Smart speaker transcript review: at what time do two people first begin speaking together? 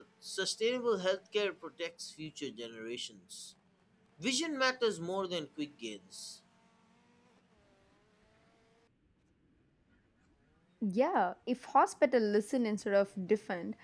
none

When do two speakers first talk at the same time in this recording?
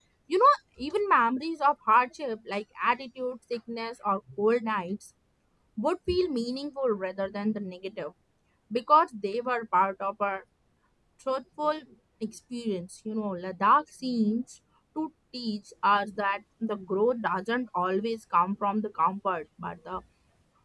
none

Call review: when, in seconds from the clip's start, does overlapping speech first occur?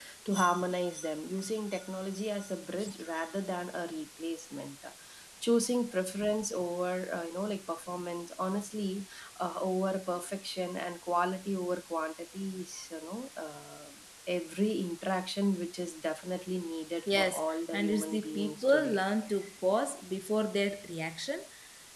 17.1 s

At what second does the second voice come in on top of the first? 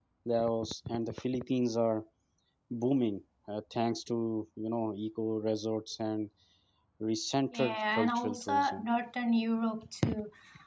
7.5 s

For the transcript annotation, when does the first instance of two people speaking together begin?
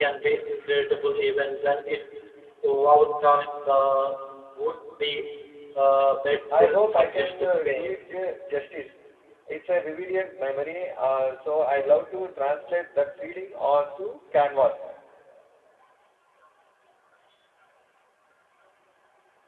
6.5 s

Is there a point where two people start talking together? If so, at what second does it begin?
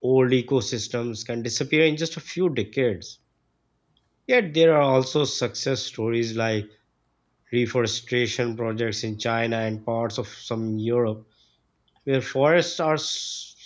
none

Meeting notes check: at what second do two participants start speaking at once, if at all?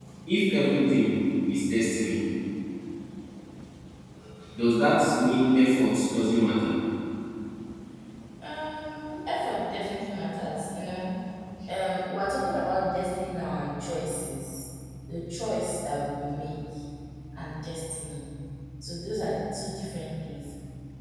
none

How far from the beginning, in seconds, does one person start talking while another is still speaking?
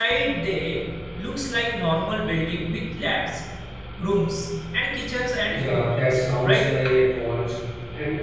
5.5 s

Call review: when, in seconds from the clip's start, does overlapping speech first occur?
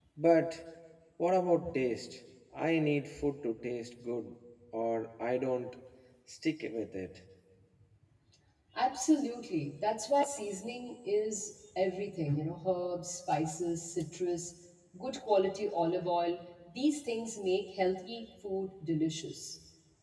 none

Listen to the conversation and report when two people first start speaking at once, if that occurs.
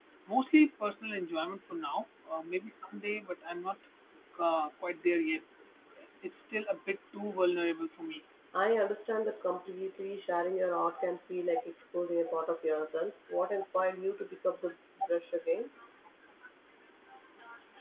none

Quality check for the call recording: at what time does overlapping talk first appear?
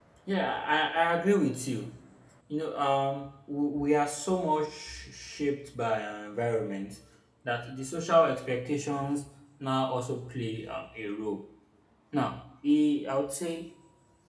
none

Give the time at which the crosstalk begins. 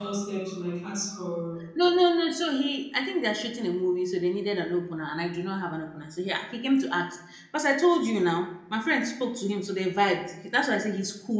none

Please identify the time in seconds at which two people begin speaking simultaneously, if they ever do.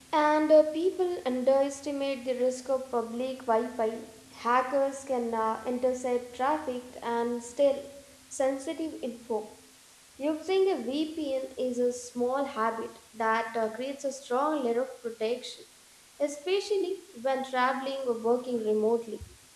none

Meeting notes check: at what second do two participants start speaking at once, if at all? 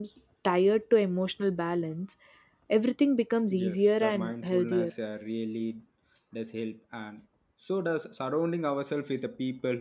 3.5 s

